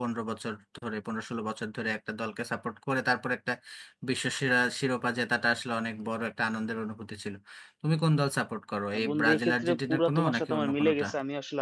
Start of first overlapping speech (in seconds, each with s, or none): 8.9 s